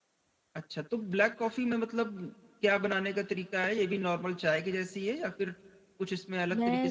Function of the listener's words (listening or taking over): taking over